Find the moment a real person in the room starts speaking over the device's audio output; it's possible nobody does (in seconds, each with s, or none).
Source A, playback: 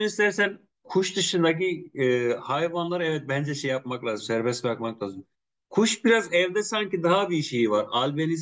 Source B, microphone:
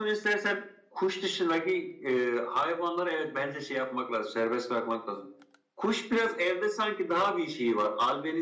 none